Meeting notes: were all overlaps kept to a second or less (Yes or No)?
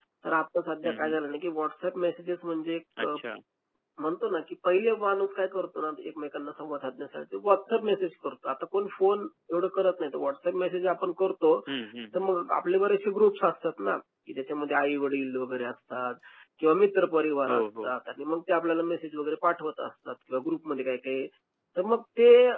Yes